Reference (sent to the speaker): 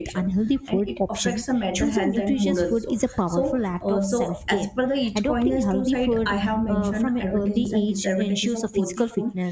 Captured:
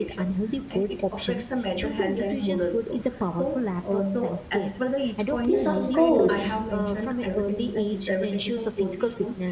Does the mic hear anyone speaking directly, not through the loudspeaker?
Yes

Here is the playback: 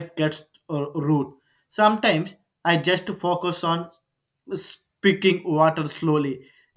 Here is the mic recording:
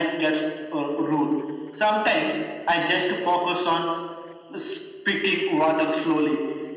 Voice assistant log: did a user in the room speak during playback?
No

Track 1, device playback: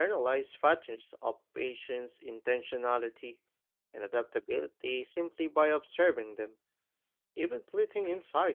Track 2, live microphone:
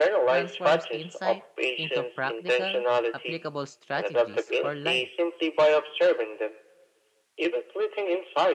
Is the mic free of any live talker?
No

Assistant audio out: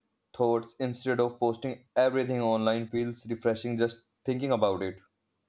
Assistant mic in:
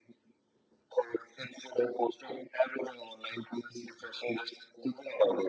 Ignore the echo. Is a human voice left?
No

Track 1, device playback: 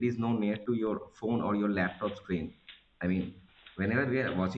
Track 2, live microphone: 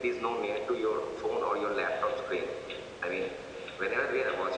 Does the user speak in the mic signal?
No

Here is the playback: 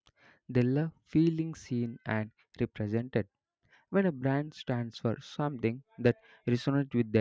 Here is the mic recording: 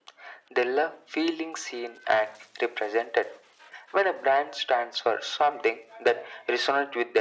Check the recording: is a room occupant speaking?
No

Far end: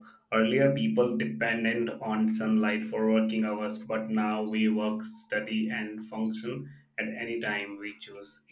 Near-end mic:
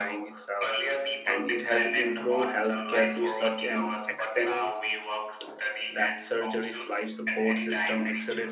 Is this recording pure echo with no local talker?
No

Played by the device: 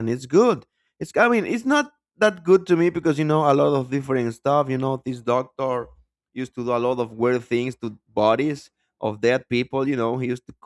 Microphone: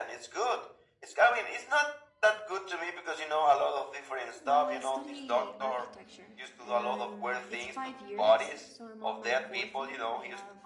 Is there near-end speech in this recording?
Yes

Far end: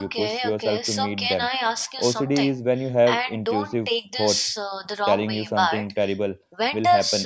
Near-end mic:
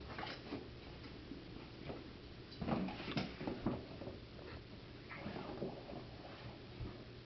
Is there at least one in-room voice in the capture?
No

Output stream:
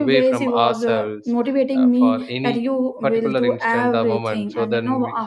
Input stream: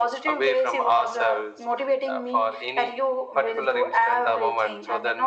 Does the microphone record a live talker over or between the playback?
No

